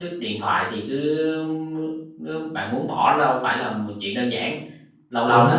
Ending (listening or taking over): listening